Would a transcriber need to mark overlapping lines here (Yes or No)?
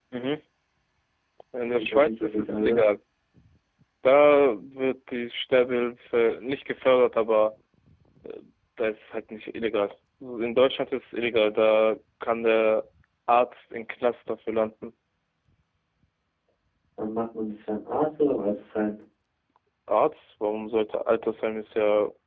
Yes